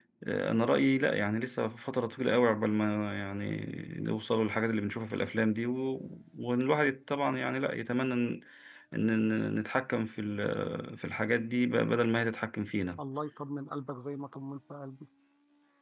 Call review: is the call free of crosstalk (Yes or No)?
Yes